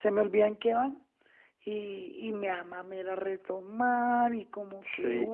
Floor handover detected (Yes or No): Yes